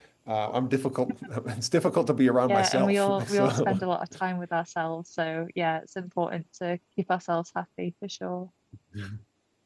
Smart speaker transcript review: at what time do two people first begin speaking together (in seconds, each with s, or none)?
2.5 s